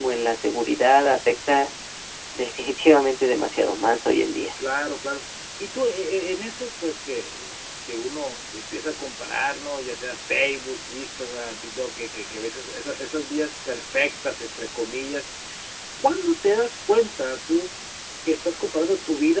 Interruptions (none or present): none